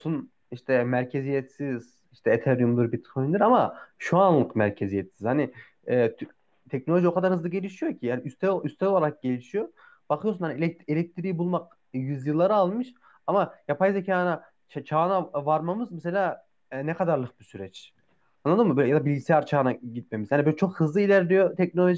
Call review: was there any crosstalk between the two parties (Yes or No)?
No